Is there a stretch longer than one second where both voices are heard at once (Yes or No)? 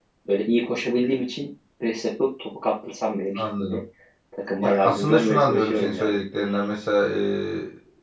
Yes